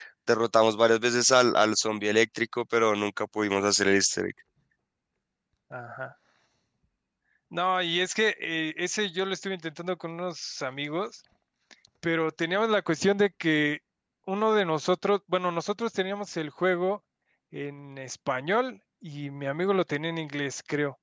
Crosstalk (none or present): none